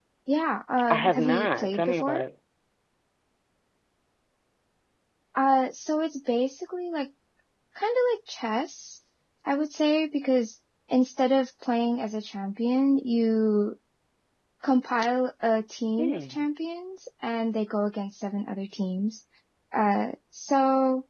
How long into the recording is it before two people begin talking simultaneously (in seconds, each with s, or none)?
0.9 s